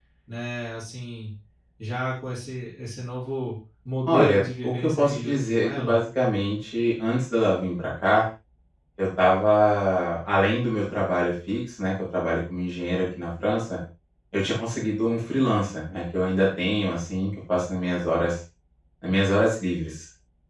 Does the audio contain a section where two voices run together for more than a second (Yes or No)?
Yes